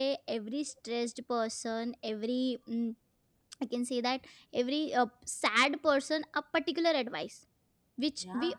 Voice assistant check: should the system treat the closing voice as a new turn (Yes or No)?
No